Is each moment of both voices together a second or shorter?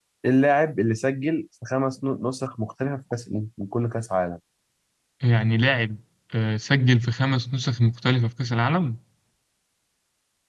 Yes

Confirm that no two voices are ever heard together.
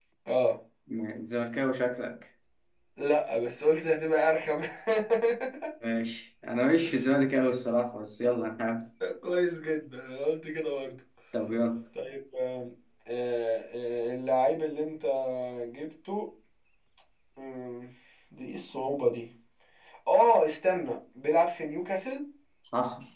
Yes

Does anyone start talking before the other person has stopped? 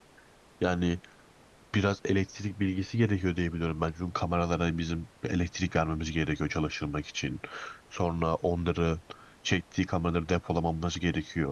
No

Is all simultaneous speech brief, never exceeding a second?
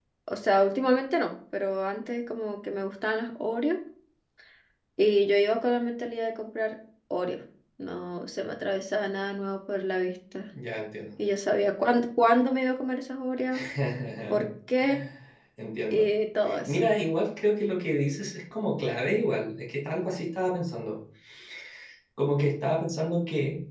Yes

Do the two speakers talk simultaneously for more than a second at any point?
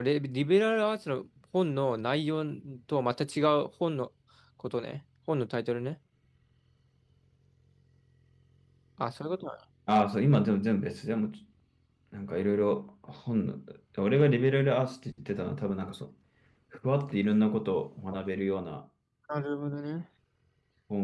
No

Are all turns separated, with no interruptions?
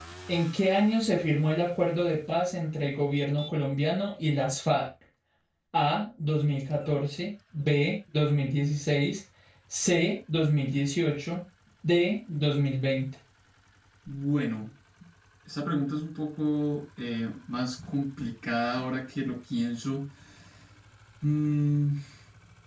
Yes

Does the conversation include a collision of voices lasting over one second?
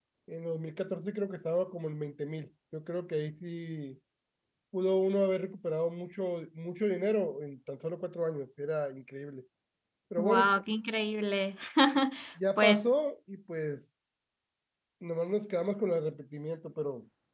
No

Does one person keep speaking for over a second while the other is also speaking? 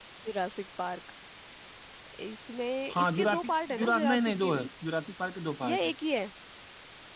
Yes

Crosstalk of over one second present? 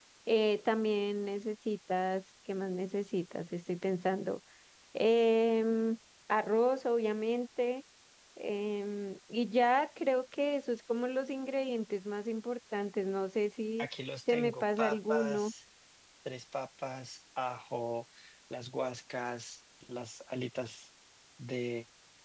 Yes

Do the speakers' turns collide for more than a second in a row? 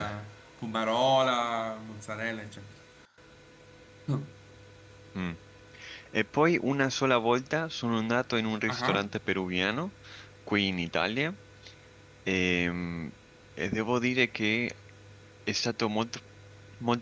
No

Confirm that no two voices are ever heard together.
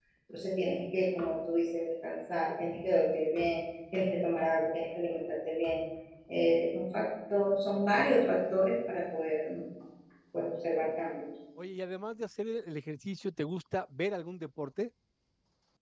Yes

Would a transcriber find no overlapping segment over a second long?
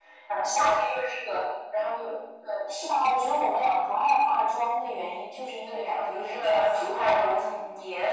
No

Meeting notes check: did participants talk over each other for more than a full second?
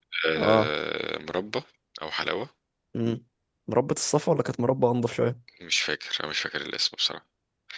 No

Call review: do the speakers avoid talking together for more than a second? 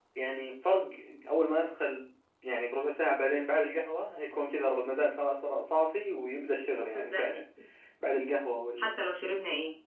Yes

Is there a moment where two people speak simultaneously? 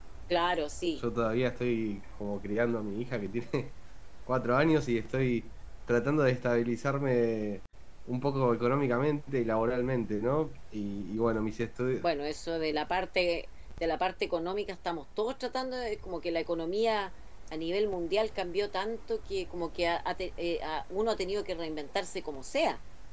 No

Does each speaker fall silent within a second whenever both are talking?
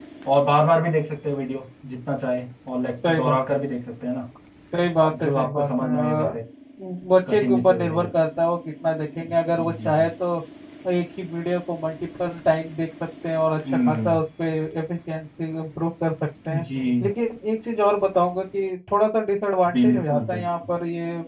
No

